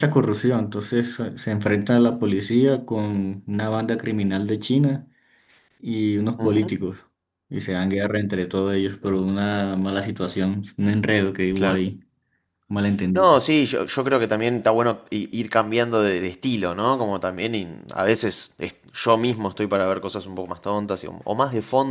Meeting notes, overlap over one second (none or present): none